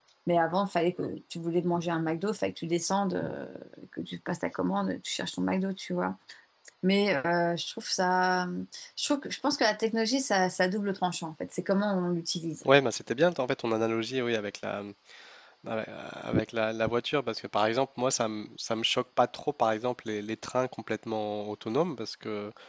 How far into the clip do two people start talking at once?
none

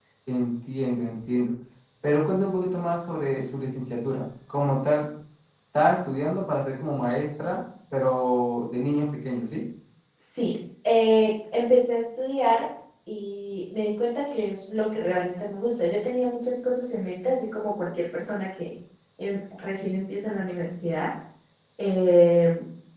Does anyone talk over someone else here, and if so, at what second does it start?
none

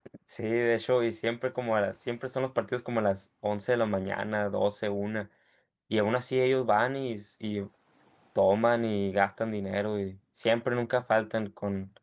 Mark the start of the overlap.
none

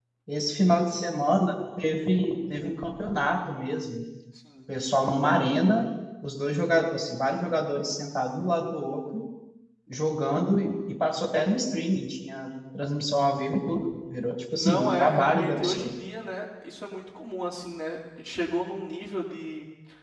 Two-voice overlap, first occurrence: 14.6 s

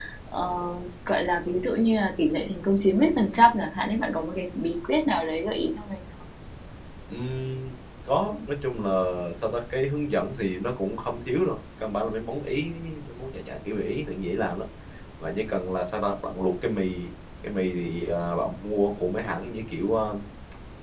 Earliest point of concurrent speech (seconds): none

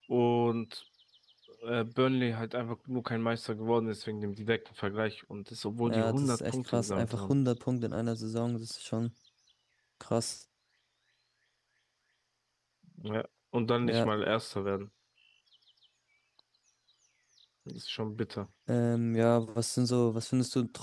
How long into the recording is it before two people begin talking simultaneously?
5.8 s

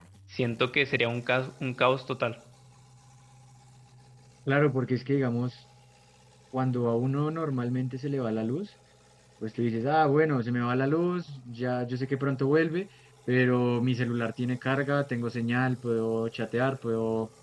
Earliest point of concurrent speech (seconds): none

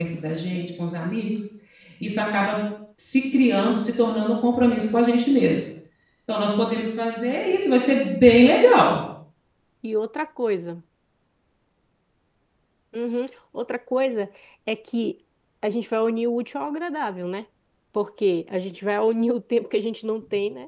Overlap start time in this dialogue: none

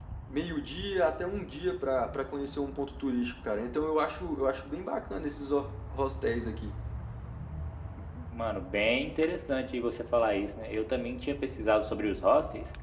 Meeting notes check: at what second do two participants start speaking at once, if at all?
none

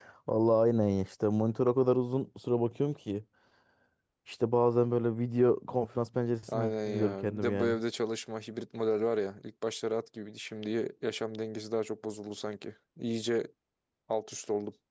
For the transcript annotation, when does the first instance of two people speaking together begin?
6.5 s

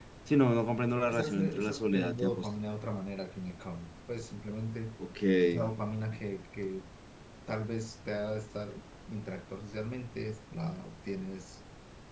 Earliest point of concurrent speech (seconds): 1.0 s

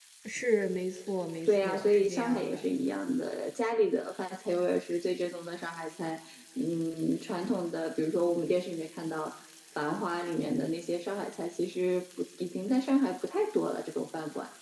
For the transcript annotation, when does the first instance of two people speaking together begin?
1.5 s

